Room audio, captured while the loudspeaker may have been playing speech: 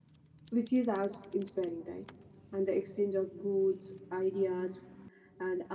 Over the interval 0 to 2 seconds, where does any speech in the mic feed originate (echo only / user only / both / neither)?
user only